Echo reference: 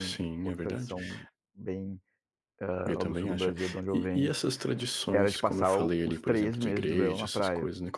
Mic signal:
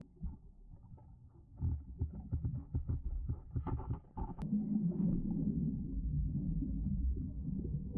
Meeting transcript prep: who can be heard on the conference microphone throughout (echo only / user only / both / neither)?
neither